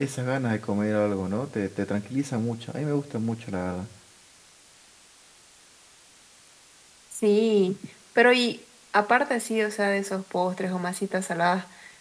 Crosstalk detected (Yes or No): No